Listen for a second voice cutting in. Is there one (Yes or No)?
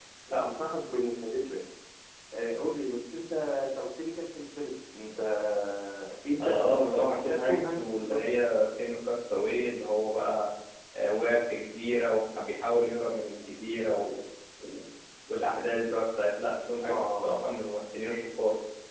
Yes